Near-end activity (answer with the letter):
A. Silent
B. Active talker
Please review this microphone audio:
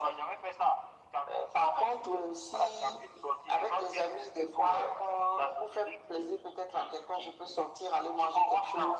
A